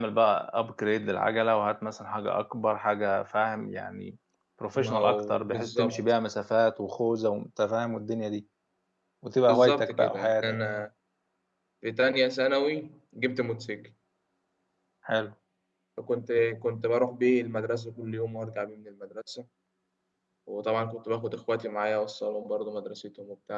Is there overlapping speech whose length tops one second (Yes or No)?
Yes